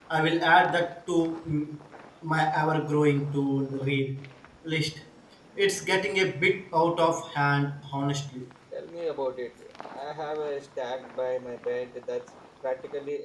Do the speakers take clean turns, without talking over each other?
Yes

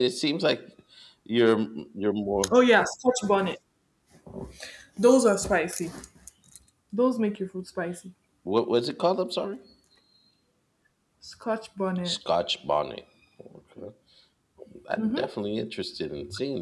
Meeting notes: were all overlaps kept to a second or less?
Yes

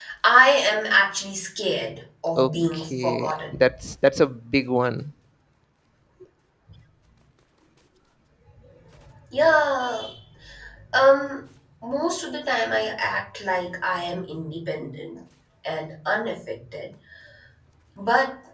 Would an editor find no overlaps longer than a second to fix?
No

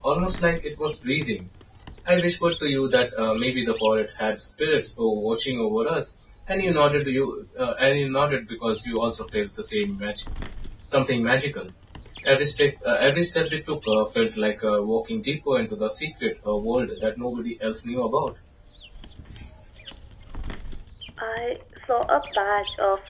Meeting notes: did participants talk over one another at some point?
No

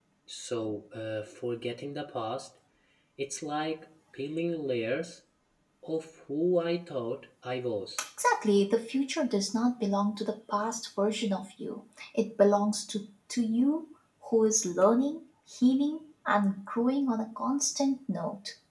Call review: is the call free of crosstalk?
Yes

